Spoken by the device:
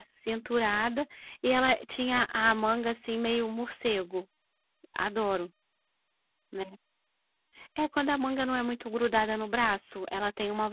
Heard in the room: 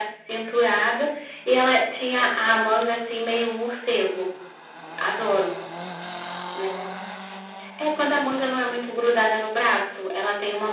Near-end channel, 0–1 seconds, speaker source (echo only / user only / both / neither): echo only